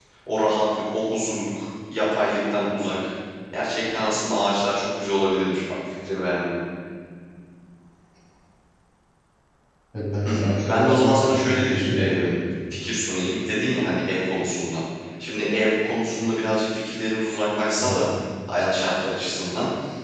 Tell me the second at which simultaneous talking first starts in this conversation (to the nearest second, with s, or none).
10 s